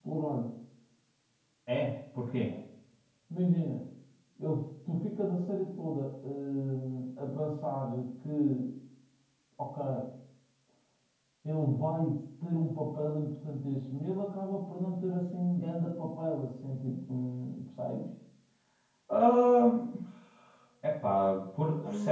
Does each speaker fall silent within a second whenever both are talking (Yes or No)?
Yes